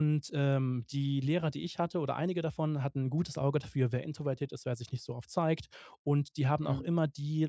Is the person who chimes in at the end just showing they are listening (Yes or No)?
Yes